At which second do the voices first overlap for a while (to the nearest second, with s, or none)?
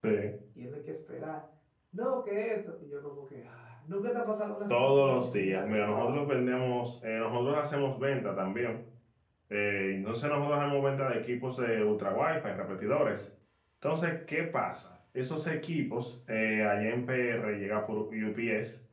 5 s